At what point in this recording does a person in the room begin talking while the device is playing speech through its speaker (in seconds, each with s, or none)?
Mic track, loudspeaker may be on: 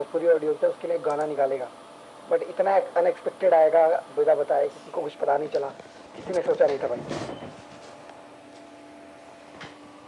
none